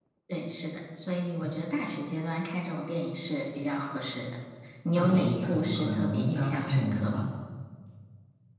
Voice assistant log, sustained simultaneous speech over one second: present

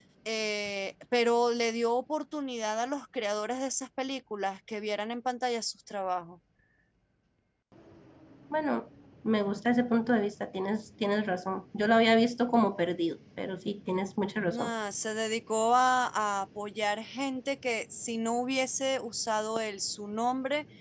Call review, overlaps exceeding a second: none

